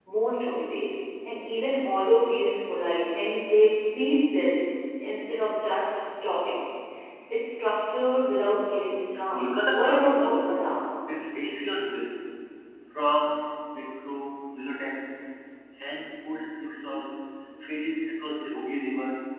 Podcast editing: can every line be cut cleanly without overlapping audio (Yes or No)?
No